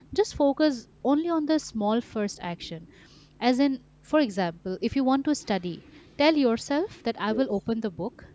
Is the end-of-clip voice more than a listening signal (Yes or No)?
No